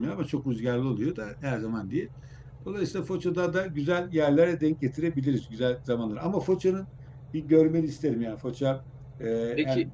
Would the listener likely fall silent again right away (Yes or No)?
Yes